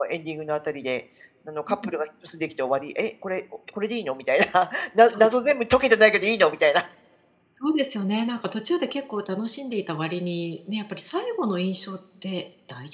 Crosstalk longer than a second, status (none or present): none